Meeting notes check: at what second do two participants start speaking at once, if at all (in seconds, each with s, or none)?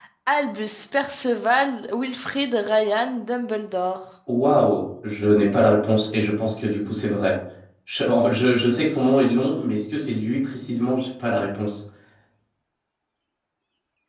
none